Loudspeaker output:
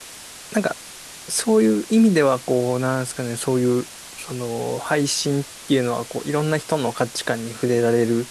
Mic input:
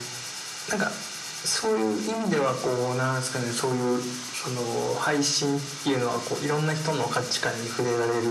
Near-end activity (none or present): none